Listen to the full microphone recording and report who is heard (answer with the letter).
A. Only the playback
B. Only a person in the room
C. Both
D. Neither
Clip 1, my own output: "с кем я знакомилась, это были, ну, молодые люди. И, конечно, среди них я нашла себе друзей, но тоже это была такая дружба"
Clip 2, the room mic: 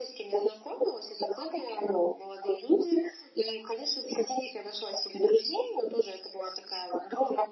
A